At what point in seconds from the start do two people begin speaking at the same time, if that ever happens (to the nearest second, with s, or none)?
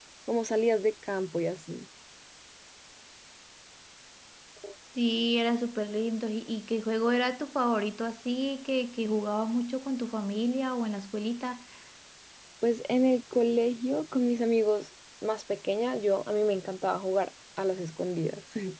none